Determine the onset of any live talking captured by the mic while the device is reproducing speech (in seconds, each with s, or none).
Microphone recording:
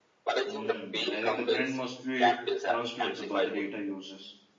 0.5 s